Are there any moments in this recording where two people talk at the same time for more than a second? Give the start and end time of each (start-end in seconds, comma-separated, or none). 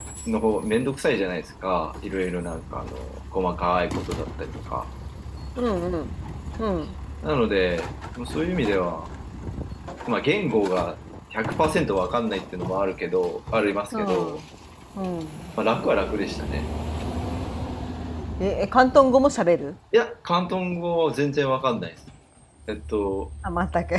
none